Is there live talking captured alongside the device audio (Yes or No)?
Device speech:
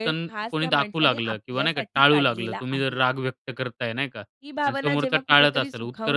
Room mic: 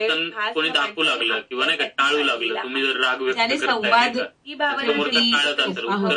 Yes